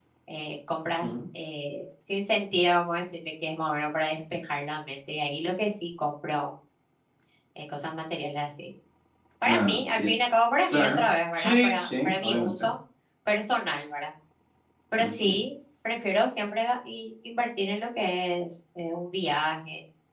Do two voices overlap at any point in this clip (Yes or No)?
Yes